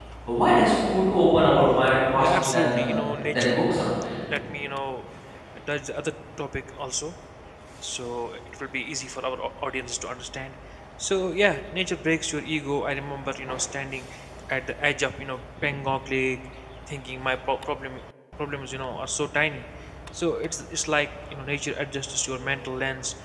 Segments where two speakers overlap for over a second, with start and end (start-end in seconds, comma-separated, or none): 2.2-3.6